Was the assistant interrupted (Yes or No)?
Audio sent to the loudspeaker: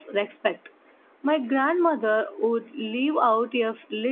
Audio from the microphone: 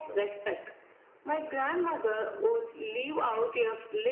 No